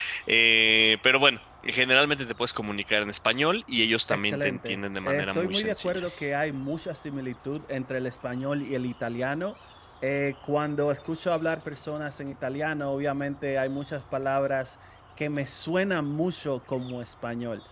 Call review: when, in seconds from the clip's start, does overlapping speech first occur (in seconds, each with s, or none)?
4.1 s